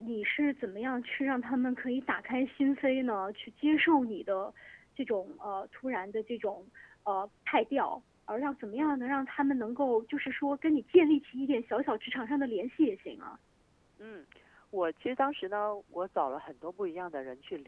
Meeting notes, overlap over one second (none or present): none